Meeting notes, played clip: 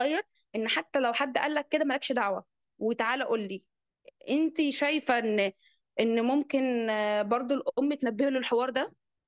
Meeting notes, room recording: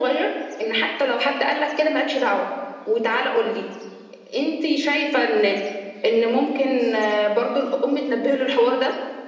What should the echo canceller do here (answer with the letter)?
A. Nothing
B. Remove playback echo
B